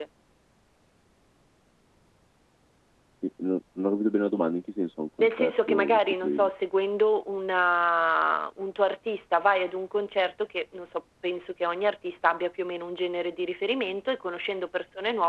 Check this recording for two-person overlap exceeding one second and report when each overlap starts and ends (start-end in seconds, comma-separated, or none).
5.2-6.5